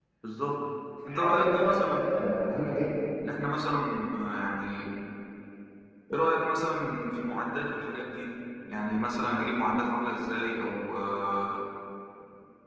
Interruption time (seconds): 1.1 s

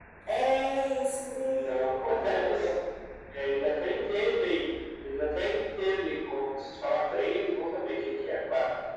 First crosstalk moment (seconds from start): 1.4 s

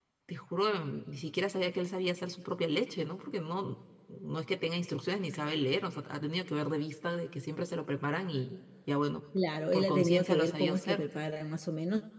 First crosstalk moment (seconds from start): 9.7 s

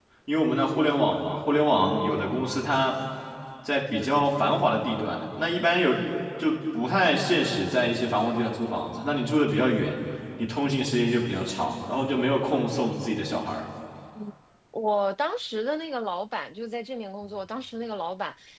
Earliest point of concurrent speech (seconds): none

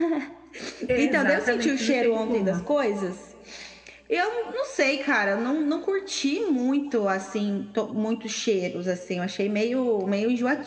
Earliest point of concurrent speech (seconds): 1.0 s

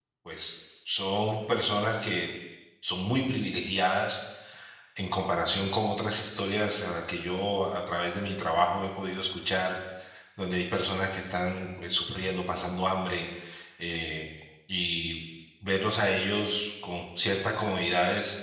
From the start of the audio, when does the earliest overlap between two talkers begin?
none

